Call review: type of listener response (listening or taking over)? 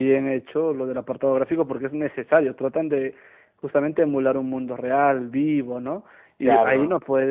listening